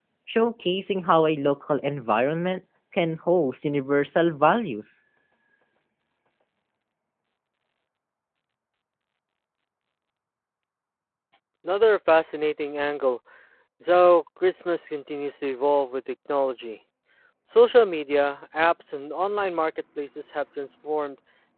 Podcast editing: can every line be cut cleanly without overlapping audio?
Yes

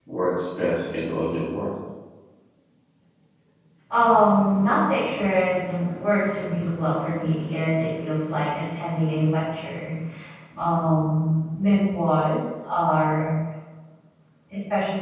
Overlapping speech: No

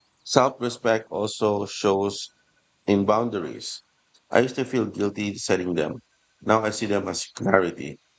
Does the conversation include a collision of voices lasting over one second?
No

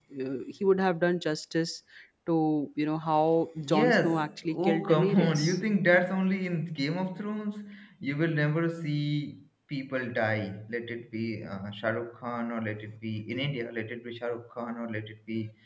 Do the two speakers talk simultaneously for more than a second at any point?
Yes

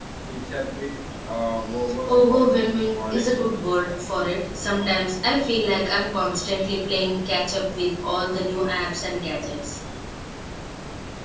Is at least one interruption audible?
Yes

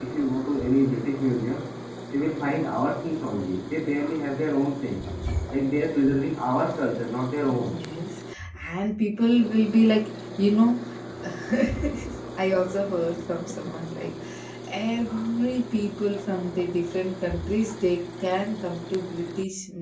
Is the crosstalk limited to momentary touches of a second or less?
Yes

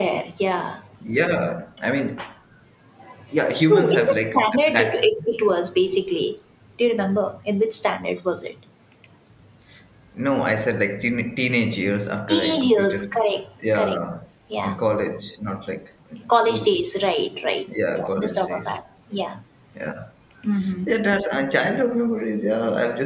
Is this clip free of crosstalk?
No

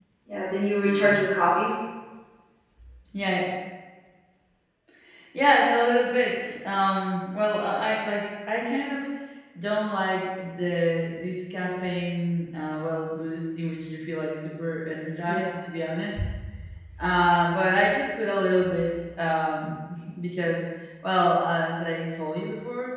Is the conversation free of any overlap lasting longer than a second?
Yes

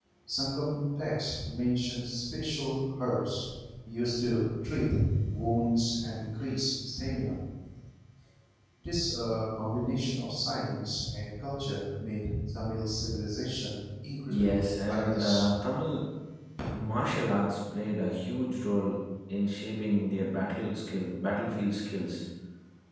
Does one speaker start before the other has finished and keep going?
Yes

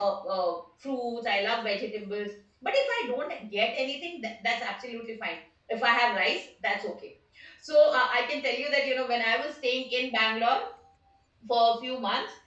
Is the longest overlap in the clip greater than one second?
No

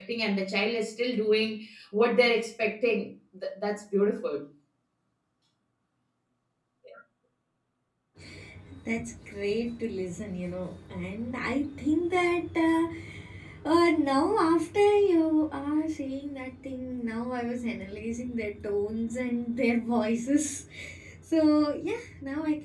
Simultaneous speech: No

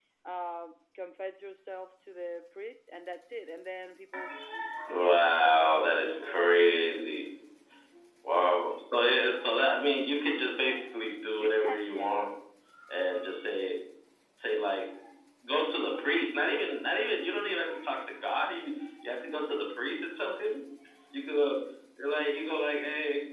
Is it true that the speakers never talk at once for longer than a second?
No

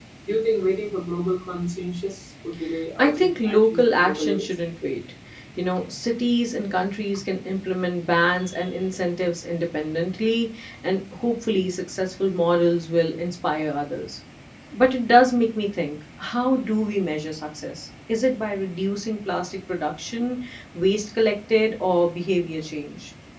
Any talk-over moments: Yes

